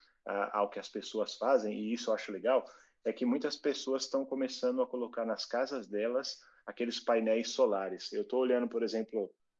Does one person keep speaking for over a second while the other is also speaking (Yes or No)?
No